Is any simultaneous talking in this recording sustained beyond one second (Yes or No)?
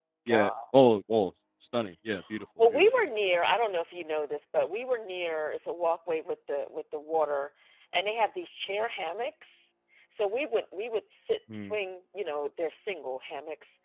No